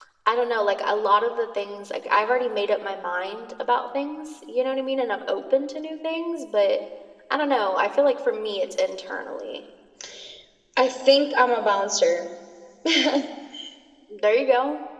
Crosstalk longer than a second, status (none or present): none